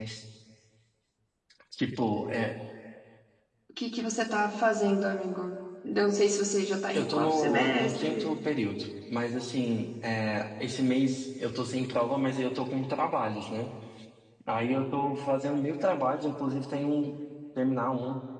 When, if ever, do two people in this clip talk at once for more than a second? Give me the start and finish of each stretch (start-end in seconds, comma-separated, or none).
6.9-8.3